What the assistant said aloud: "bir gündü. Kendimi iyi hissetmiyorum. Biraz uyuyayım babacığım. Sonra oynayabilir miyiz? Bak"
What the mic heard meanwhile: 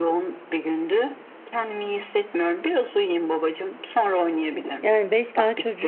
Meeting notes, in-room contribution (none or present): present